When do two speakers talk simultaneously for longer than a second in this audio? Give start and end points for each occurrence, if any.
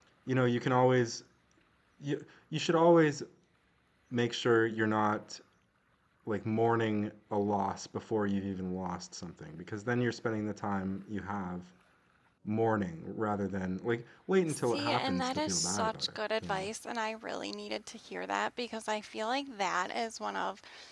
14.5-16.7

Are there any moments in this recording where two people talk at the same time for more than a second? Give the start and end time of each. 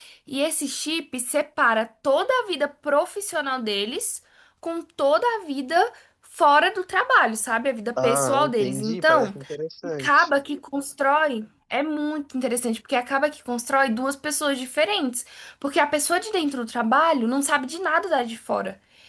8.0-9.4

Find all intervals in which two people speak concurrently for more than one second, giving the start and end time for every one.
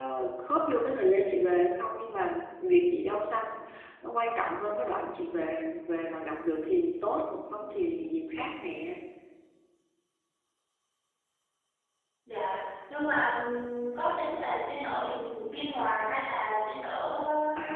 none

